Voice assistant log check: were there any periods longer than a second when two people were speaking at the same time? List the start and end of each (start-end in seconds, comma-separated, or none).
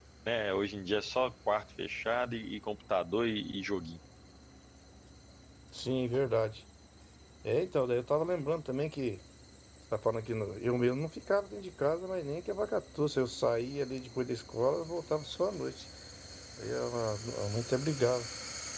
none